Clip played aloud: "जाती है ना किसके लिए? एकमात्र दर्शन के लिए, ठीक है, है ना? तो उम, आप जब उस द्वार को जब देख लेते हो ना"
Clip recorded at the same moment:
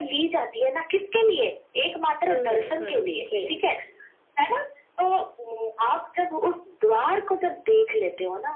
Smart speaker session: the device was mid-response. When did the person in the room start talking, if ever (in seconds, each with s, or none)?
2.3 s